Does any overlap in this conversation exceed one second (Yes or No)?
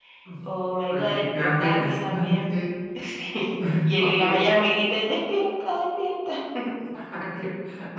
Yes